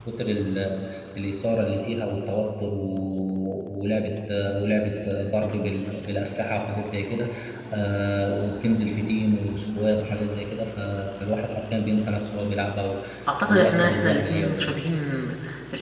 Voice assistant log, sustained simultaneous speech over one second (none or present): present